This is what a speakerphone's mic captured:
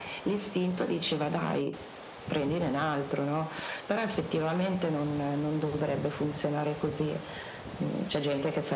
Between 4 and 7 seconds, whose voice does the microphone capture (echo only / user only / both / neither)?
echo only